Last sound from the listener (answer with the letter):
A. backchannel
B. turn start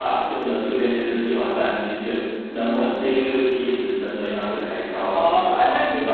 B